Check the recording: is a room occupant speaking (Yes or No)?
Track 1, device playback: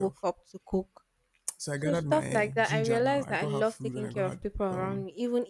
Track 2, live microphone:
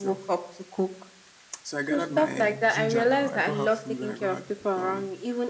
No